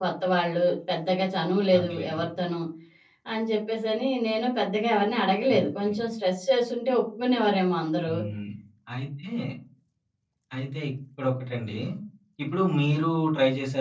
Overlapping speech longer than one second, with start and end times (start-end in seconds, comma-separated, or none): none